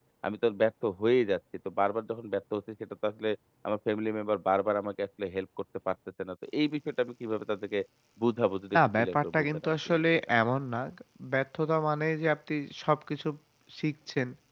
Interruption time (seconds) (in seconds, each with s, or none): 8.8 s